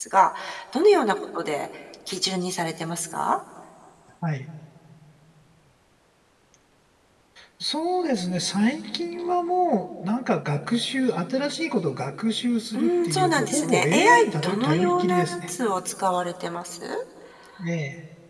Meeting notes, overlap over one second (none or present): present